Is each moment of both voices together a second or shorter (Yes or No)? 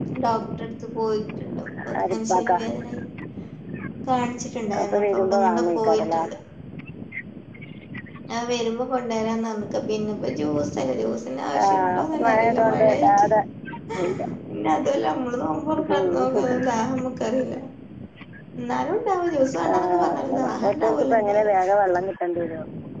No